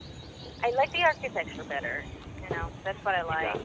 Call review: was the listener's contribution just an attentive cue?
No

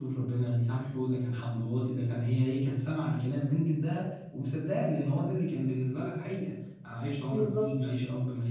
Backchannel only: Yes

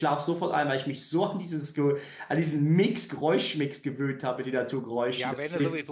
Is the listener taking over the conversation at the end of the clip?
Yes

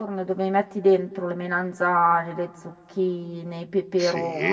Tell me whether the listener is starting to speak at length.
No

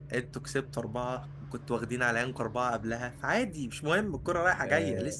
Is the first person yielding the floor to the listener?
Yes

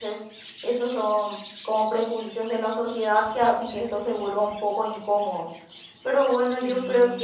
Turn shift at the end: No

